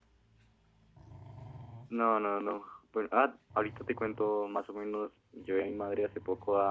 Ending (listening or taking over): listening